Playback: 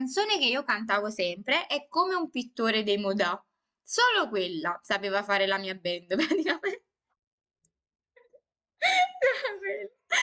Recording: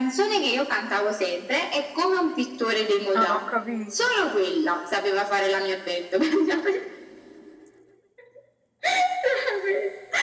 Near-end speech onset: 3.1 s

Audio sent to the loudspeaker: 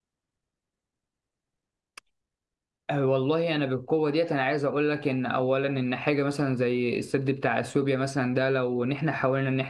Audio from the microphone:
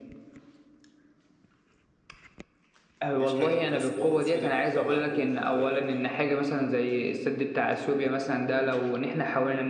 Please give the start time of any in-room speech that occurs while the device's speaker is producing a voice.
3.1 s

